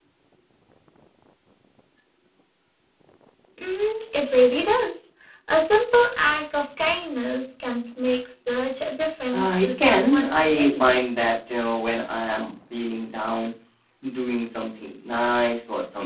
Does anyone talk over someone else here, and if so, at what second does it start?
9 s

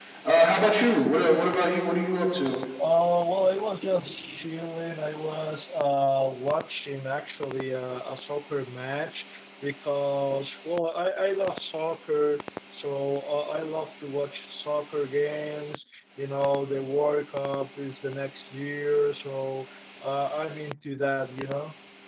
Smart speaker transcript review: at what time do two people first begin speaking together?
none

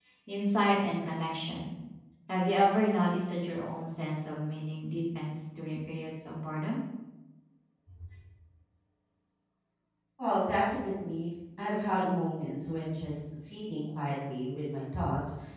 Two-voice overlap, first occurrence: none

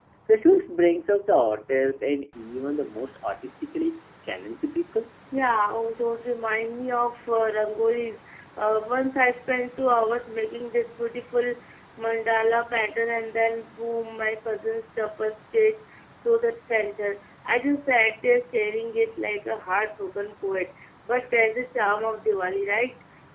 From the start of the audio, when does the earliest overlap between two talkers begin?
none

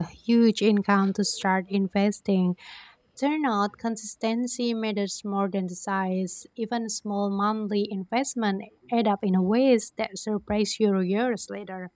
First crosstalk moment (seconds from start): none

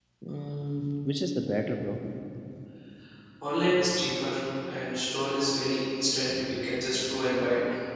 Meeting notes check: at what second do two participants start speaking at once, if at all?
none

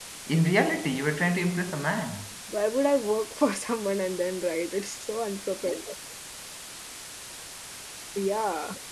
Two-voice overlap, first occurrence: none

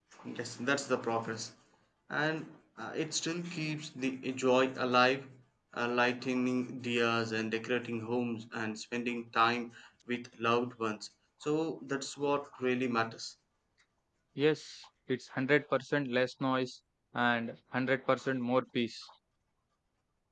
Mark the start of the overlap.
none

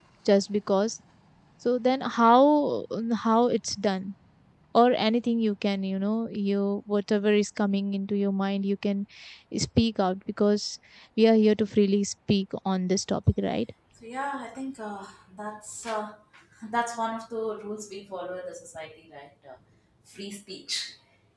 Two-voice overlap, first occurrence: none

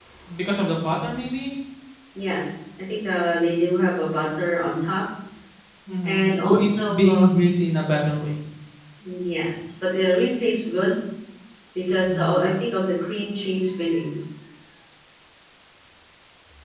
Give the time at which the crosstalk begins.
6 s

